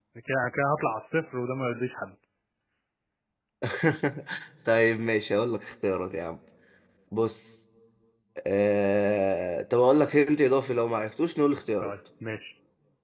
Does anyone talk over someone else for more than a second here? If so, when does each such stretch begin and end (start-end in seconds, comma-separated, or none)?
none